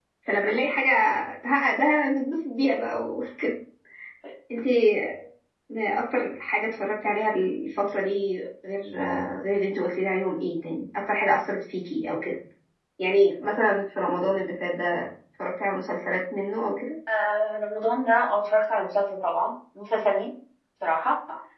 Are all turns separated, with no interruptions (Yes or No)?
Yes